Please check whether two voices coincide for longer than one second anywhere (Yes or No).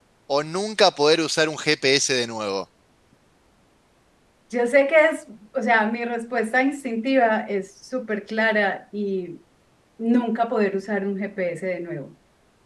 No